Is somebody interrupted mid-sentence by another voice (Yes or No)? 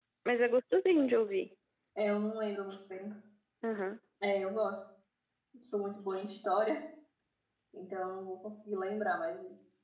No